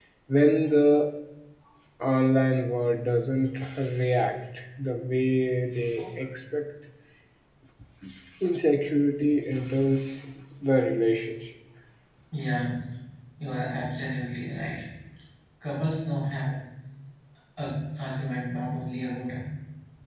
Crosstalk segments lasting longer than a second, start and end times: none

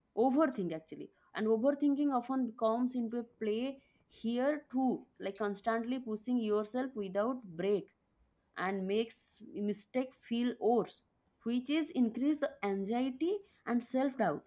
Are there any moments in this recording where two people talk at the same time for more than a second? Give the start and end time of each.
none

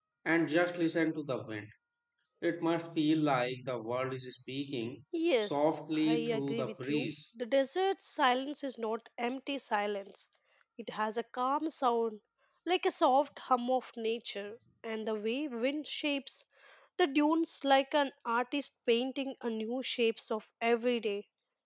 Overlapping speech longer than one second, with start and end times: 5.4-7.1

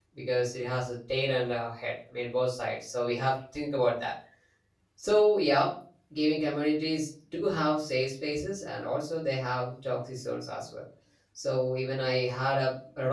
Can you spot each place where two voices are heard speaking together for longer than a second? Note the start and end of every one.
none

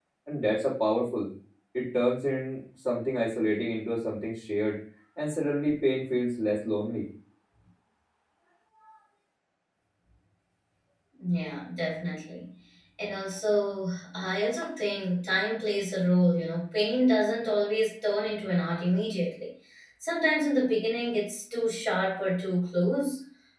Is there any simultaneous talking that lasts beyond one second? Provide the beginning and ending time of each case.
none

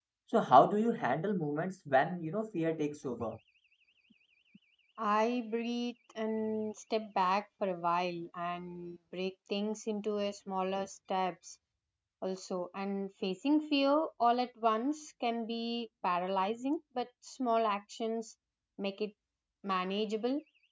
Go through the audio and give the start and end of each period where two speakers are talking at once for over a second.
none

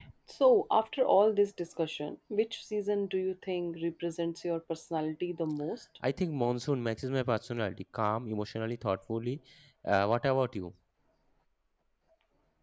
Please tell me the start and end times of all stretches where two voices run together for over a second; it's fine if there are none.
none

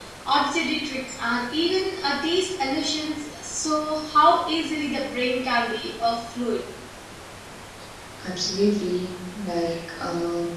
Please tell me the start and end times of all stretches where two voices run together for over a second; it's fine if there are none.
none

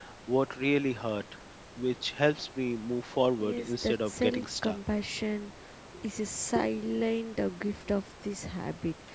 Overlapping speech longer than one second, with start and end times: 3.4-4.8

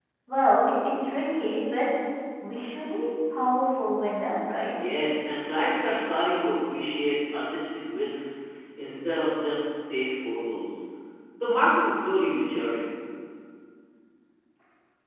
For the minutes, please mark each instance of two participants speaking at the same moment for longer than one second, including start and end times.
none

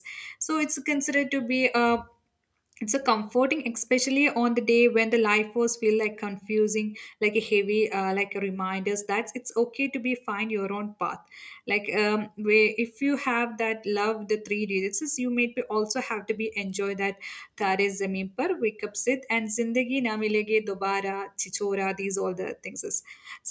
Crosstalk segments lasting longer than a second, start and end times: none

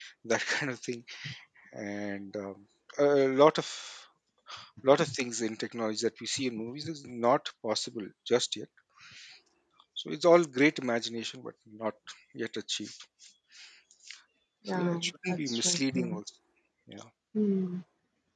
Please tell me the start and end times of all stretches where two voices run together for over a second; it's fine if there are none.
14.7-16.2

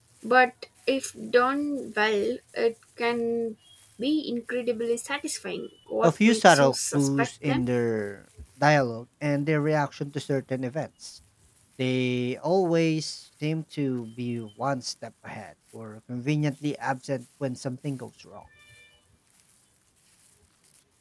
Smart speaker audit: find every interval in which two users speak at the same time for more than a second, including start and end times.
6.0-7.6

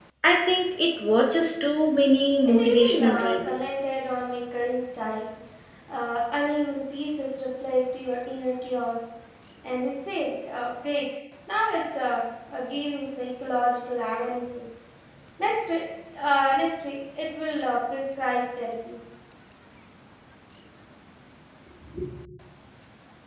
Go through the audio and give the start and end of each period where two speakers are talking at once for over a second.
2.4-3.7

